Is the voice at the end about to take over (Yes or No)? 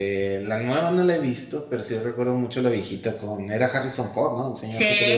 Yes